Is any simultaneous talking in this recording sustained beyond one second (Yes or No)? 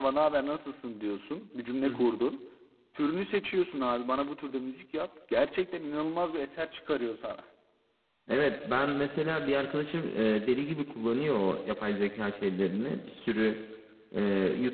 No